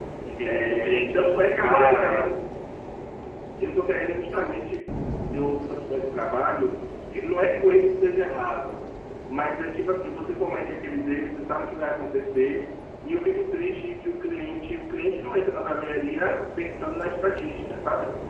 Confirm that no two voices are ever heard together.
No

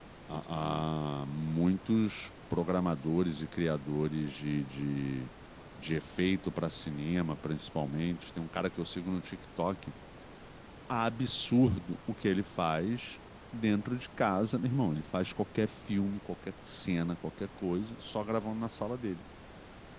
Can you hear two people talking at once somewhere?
No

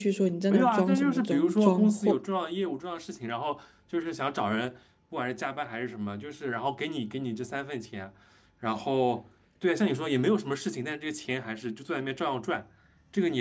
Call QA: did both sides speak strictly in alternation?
No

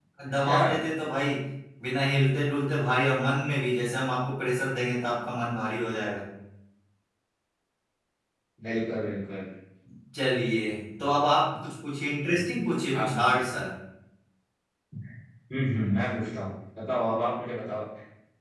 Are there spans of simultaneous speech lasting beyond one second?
No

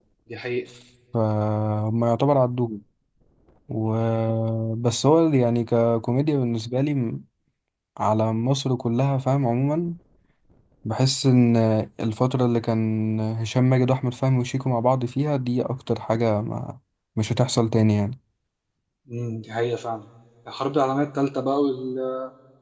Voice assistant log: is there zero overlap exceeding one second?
Yes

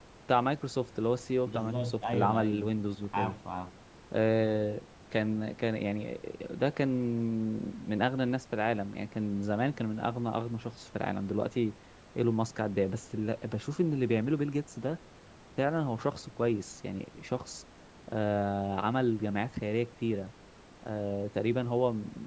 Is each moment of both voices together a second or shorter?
No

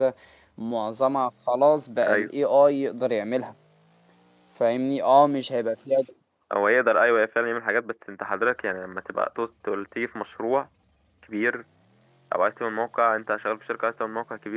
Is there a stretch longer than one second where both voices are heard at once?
No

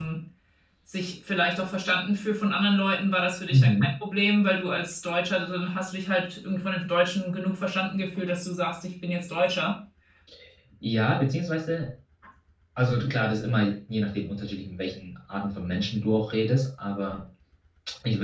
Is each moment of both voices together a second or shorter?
Yes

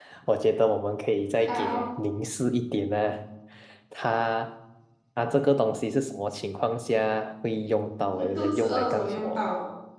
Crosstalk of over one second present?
Yes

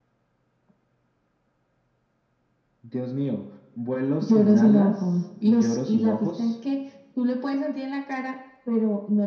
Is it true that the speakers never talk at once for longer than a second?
No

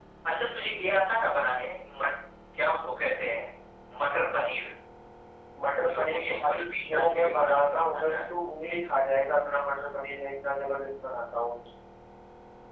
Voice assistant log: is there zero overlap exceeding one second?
No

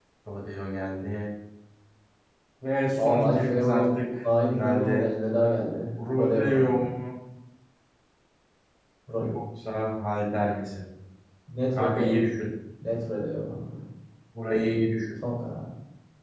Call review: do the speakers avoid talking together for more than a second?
No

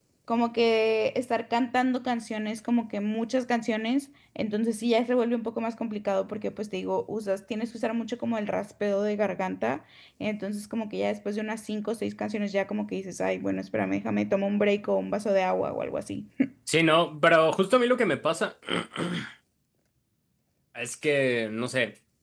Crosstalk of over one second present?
No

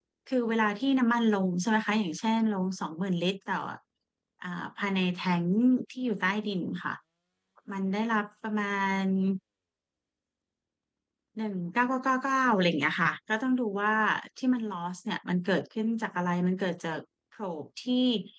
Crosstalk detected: No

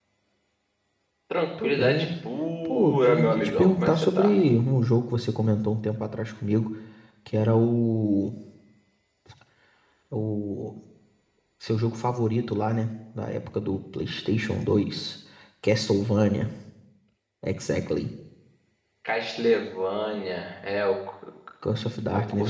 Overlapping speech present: Yes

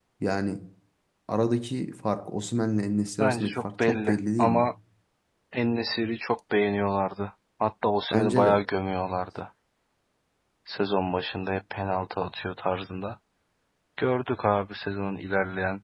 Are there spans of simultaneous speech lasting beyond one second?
Yes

